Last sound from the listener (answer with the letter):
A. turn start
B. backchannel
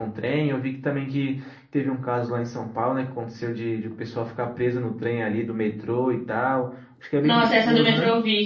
A